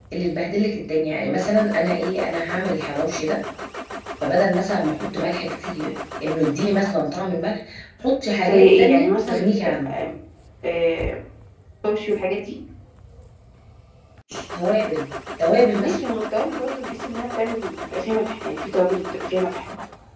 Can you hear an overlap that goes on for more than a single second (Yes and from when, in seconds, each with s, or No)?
Yes, from 8.4 s